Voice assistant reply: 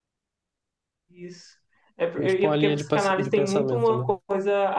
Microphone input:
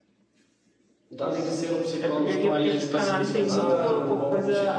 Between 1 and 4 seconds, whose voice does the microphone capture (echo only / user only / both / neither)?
both